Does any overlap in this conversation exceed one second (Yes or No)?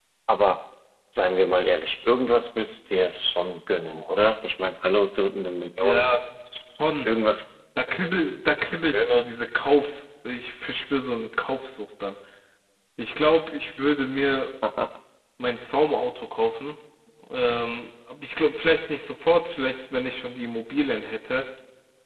No